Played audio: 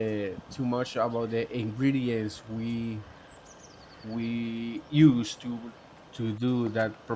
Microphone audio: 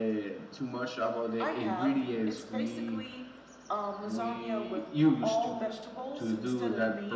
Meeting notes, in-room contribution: present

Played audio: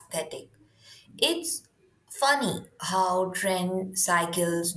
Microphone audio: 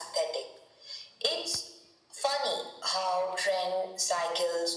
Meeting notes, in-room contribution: none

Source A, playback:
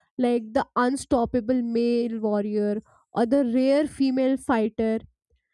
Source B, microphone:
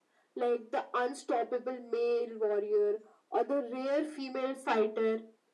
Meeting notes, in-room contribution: none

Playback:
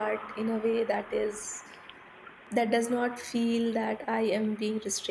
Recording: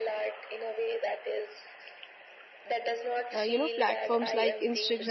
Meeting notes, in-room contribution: present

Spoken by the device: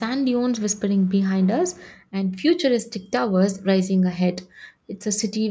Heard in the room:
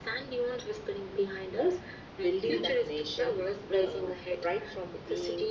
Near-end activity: present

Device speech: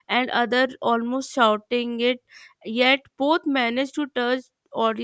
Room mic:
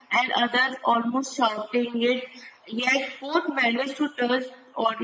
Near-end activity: none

